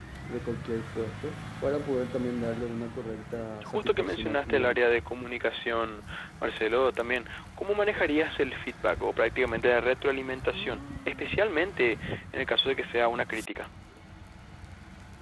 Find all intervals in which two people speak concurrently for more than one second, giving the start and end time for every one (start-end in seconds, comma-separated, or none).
3.3-4.8